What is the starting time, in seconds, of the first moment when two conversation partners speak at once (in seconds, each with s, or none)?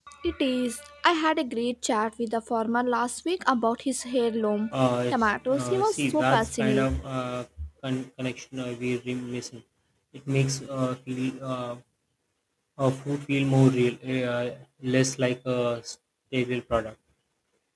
5.5 s